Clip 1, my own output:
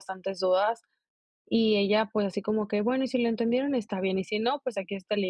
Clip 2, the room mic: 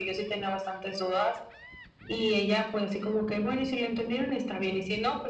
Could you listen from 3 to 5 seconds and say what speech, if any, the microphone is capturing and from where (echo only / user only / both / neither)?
echo only